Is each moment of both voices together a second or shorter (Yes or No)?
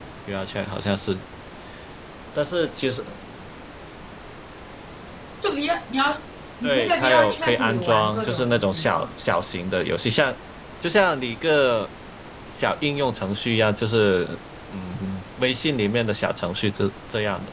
No